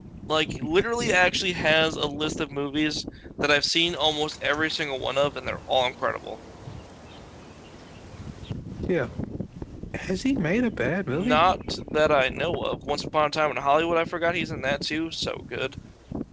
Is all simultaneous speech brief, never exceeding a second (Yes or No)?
Yes